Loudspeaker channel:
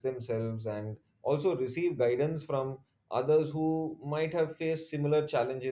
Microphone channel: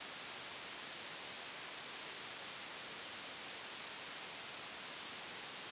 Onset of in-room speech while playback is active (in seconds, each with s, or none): none